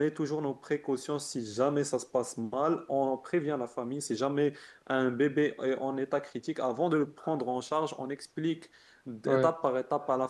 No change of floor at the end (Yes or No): Yes